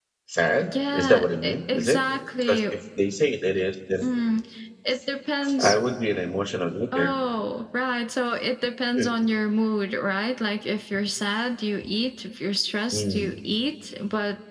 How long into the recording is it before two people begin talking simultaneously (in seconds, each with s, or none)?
0.6 s